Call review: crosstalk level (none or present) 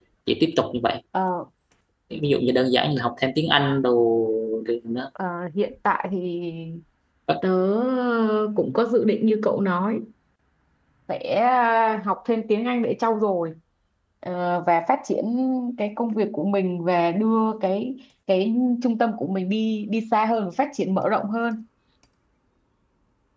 none